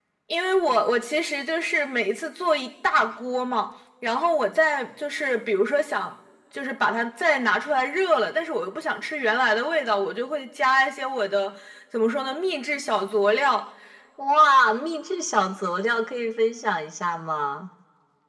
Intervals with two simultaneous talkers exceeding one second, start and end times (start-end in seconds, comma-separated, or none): none